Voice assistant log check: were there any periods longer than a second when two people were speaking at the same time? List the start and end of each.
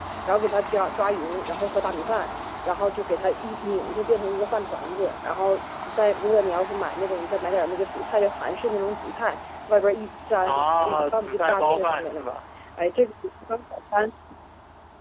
10.4-12.4

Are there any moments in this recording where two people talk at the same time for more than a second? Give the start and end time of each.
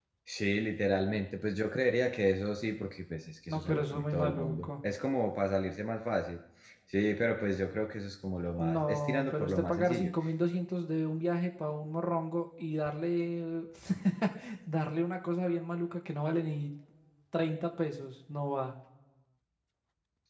3.5-4.7, 8.6-10.1

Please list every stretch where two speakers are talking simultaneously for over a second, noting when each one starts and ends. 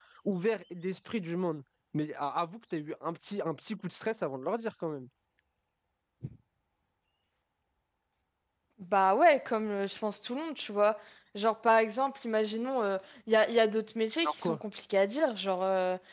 none

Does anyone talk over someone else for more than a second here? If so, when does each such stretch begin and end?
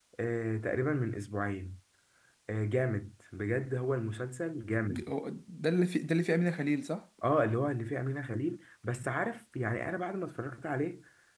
none

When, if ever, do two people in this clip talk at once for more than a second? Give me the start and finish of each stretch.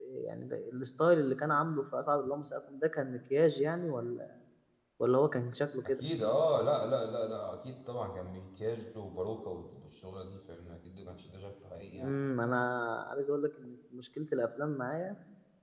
none

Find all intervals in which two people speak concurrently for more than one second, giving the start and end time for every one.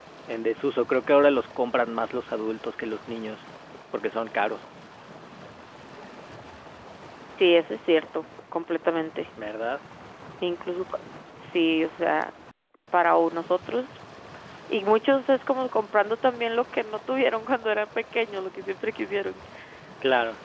none

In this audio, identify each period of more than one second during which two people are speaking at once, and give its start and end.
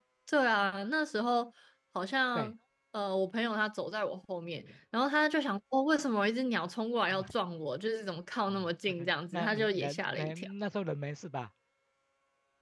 8.5-10.5

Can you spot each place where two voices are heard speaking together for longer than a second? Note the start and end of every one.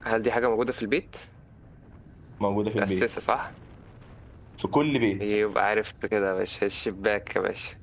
none

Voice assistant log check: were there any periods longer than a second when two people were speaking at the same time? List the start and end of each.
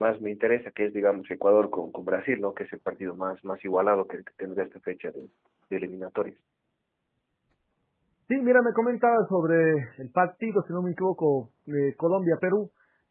none

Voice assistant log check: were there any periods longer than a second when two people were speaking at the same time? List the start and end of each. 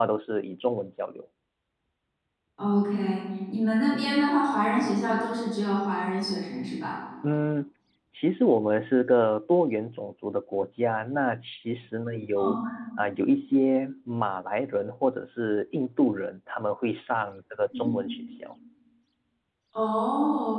none

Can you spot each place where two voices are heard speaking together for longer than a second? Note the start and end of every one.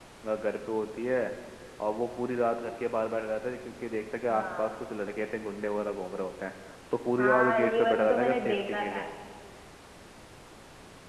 7.2-9.0

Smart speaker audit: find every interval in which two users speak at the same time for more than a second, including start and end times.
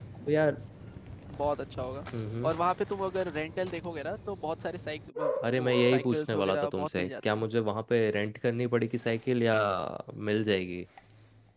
5.5-7.4

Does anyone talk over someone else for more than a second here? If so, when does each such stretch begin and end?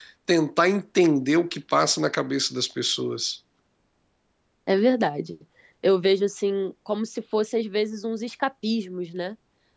none

